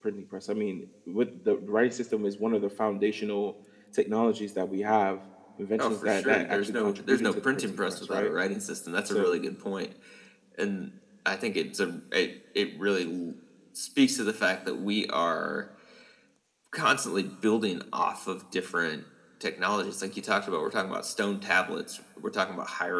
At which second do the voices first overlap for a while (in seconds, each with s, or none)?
5.8 s